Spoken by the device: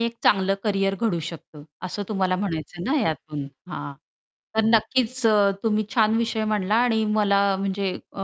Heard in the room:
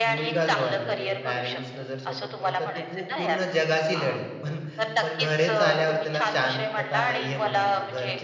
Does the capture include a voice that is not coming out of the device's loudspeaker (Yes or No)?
Yes